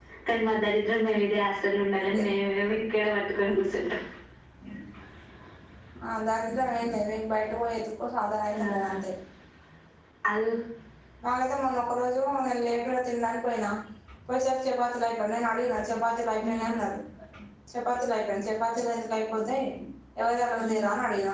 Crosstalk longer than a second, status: none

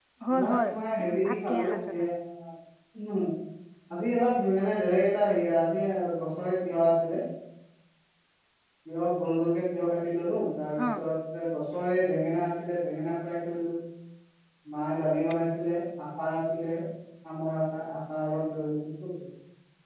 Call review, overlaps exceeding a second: present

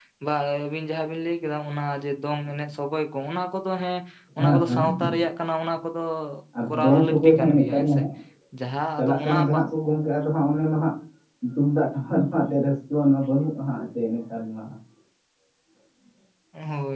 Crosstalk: present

